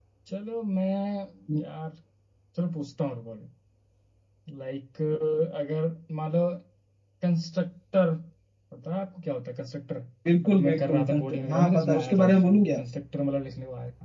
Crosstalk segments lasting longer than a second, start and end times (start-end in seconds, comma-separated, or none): 10.4-12.8